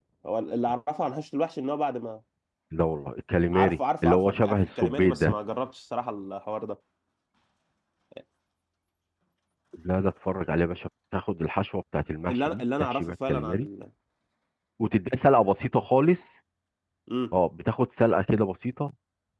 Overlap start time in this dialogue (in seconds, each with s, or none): 3.5 s